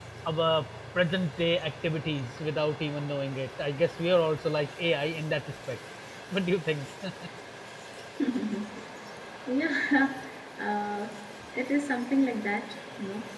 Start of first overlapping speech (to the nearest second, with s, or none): none